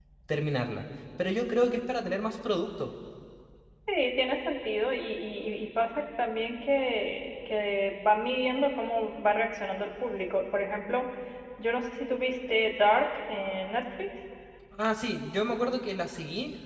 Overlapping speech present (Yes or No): No